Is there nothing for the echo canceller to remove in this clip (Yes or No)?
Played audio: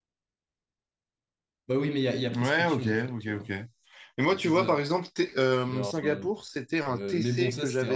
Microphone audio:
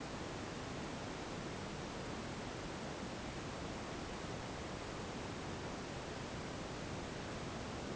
Yes